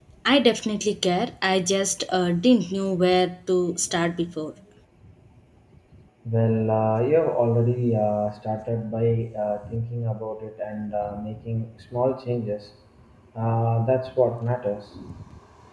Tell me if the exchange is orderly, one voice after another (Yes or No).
Yes